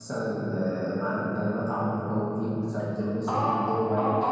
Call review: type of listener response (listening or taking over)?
taking over